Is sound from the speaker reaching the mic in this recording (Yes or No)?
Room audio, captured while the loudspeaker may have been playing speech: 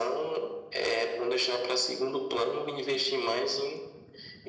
Yes